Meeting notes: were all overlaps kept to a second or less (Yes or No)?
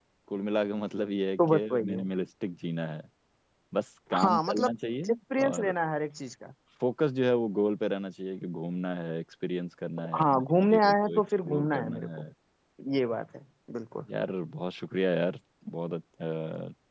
No